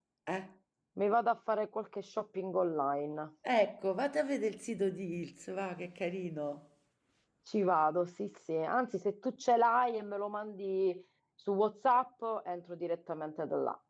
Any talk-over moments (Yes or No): No